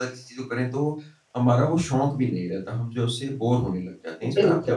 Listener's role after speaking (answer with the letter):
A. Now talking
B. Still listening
A